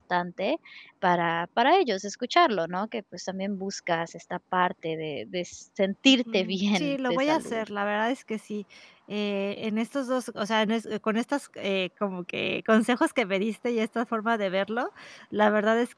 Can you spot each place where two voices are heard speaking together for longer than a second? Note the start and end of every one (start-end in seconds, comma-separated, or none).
6.1-7.6